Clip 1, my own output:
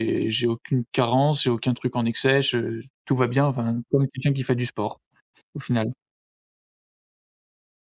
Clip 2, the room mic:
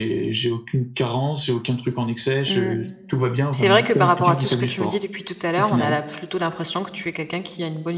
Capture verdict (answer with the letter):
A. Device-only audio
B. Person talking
B